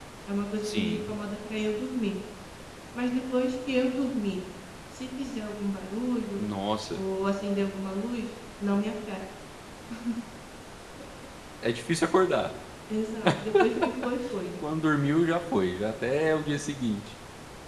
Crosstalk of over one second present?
No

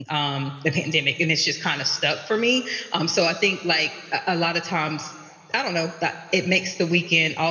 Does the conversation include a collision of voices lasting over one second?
No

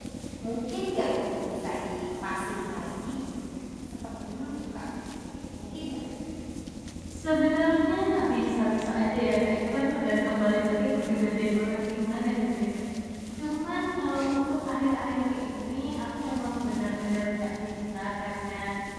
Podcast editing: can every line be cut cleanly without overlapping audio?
Yes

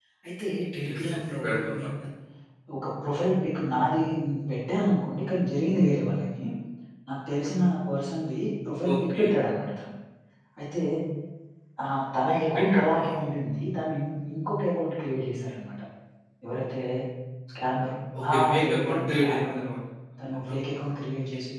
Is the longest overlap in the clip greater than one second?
Yes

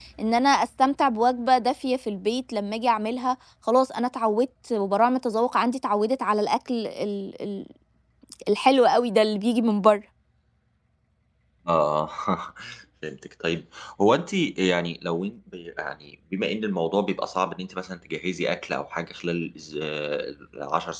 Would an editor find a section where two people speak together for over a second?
No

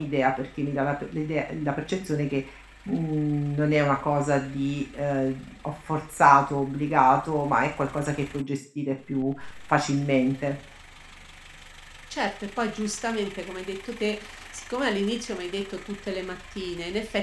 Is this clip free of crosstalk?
Yes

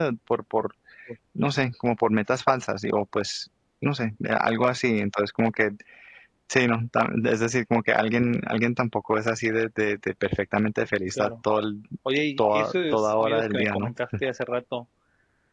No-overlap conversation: No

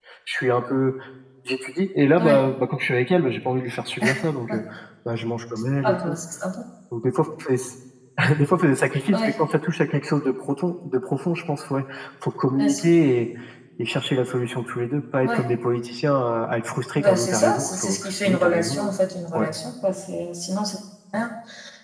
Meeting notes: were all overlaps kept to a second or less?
No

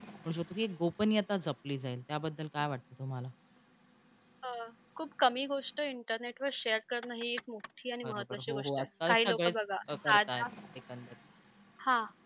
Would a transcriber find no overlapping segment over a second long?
No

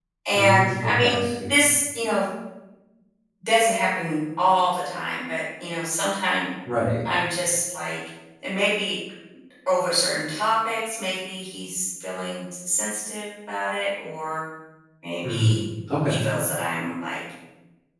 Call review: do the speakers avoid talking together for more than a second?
No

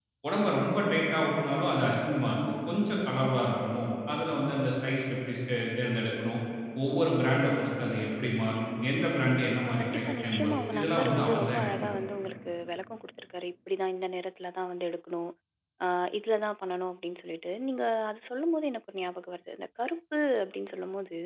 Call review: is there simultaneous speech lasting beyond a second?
Yes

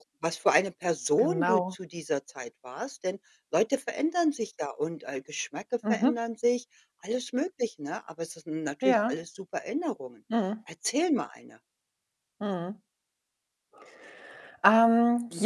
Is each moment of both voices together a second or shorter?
Yes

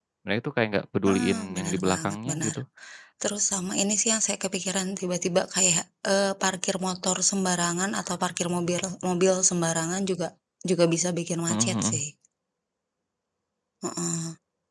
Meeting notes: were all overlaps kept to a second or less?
No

